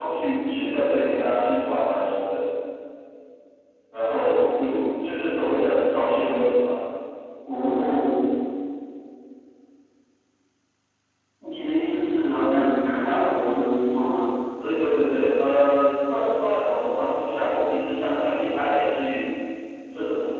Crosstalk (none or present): none